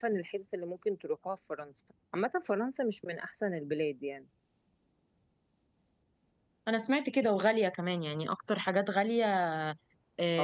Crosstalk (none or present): none